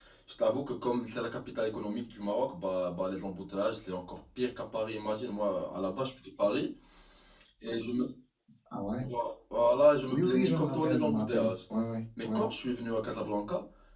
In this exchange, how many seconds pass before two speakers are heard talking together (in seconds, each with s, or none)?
10.1 s